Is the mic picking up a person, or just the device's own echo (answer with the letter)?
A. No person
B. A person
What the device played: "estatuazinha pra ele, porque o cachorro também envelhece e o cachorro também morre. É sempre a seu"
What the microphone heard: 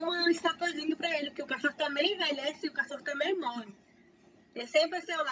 A